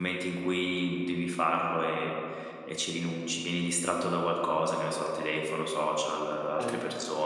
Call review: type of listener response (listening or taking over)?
listening